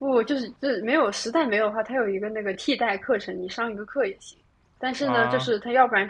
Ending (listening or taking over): listening